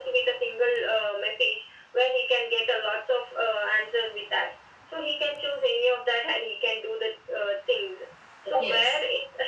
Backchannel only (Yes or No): Yes